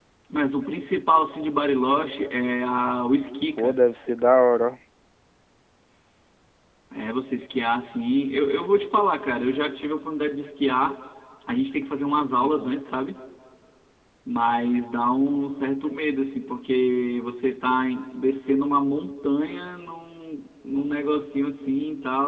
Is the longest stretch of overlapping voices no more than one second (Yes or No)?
Yes